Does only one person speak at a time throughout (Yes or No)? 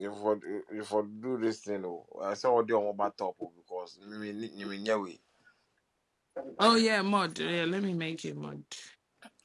Yes